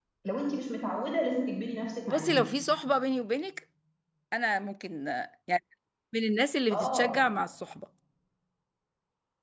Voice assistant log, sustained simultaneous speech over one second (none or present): none